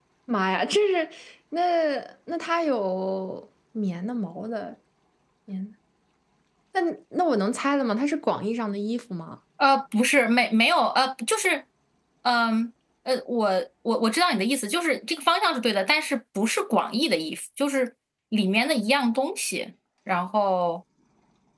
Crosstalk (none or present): none